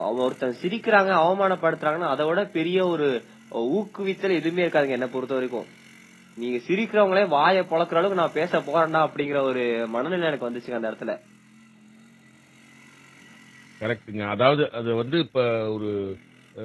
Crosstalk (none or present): none